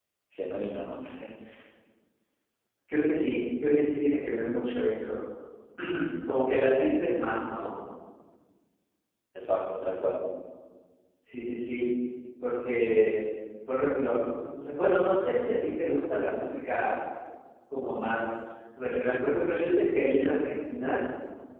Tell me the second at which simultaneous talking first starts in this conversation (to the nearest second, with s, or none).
none